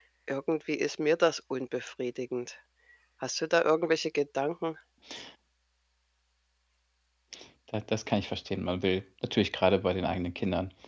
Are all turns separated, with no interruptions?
Yes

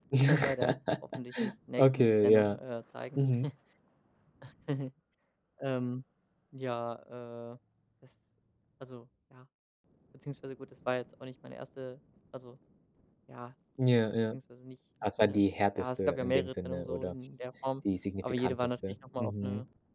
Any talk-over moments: Yes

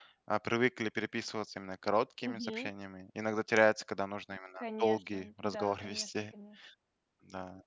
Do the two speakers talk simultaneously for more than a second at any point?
Yes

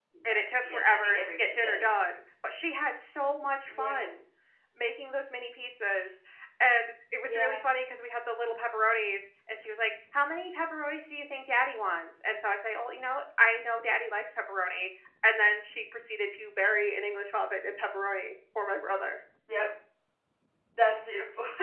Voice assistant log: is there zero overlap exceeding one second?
No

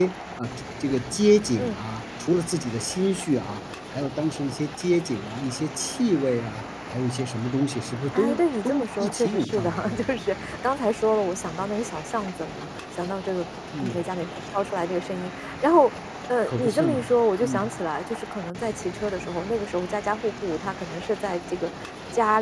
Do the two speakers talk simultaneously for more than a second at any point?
Yes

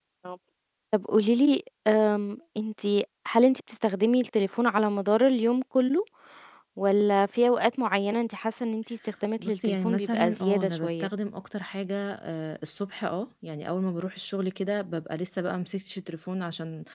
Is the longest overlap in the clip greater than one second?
Yes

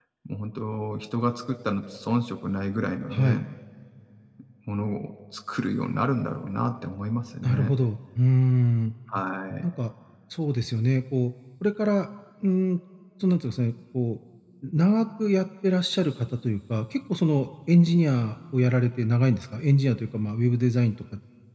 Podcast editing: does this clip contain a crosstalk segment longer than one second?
No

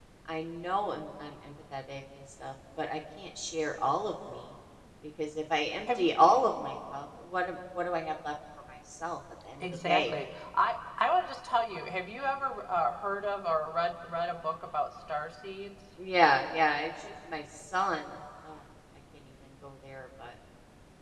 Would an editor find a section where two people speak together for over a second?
No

